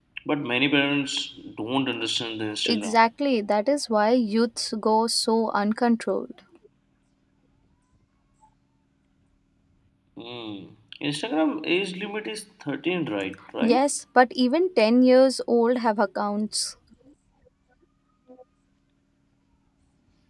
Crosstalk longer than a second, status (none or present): none